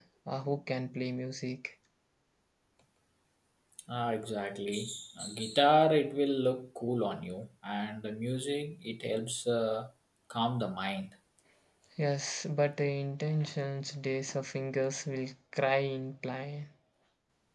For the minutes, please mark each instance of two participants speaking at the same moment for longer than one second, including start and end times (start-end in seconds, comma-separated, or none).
none